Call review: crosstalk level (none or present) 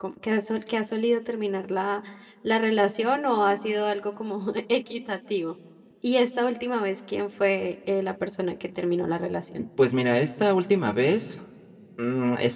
none